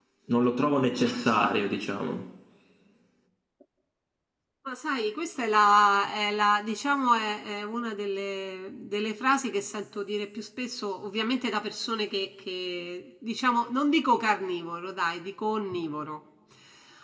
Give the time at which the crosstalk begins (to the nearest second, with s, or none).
none